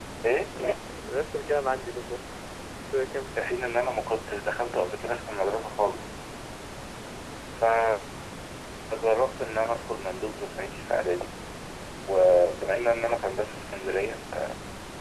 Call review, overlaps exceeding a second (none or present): none